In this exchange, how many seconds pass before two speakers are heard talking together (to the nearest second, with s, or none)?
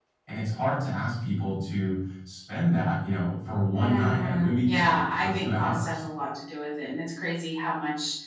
4 s